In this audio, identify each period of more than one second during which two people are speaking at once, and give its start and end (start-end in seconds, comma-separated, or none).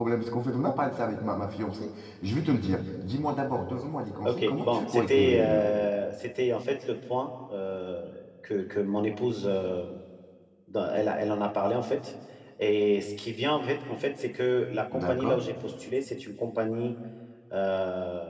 4.2-5.6